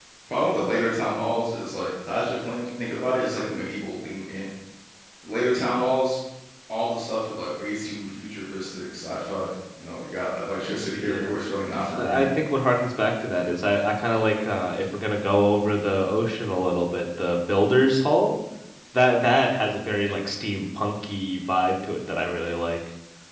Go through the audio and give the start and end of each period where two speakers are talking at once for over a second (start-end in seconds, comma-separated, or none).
none